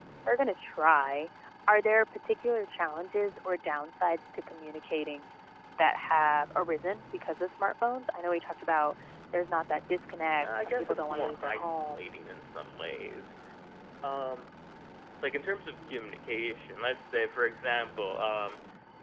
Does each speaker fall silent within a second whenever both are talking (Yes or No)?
No